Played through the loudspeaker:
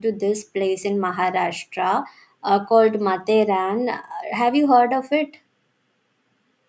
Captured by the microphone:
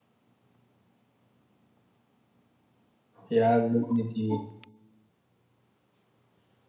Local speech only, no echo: Yeah, good Nidhi.

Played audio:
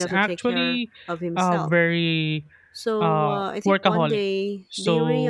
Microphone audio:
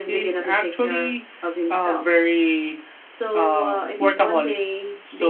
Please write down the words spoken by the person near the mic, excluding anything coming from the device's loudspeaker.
none

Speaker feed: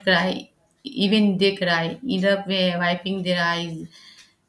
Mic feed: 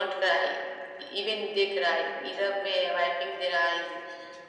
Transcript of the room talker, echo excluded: none

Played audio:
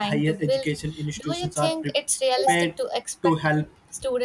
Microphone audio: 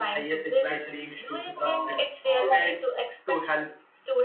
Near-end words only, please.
well being to uh, uh,

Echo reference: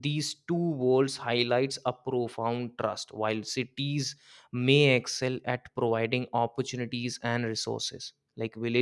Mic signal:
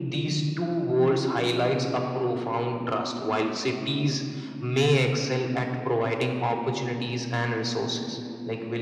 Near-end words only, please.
none

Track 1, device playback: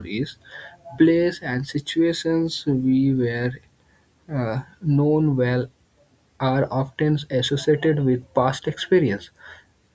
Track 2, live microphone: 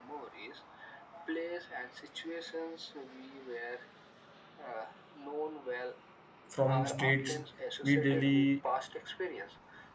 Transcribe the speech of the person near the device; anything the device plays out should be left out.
from streets we daily

